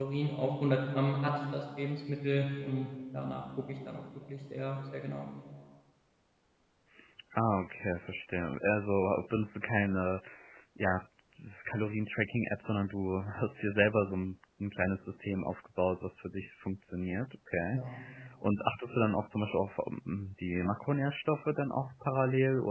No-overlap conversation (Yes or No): Yes